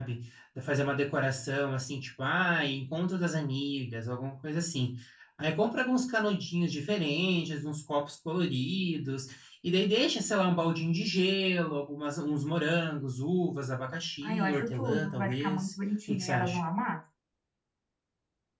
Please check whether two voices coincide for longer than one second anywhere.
Yes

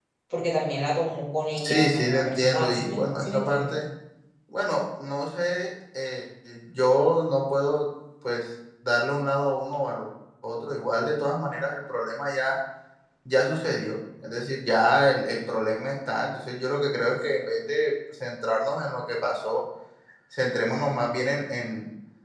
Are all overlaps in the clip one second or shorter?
No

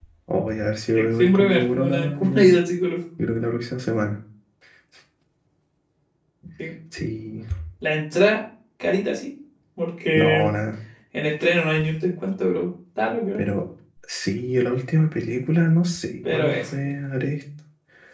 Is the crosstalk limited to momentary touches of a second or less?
No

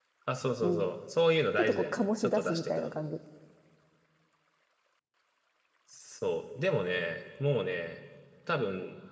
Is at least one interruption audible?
Yes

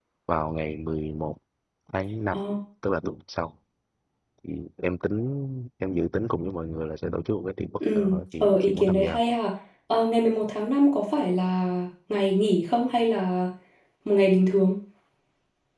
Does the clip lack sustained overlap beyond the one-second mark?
No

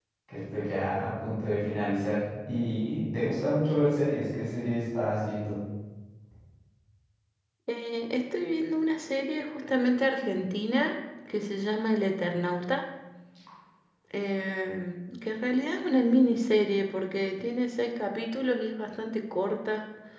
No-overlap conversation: Yes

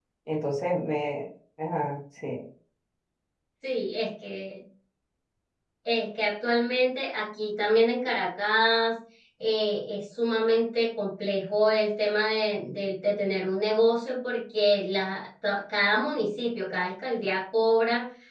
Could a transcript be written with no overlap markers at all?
Yes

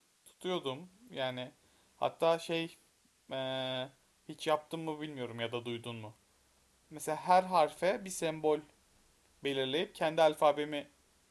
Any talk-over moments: No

